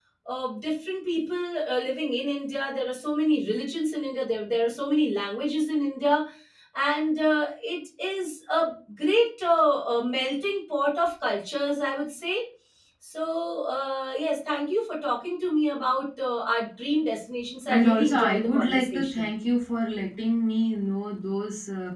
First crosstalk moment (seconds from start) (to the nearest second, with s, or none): 18 s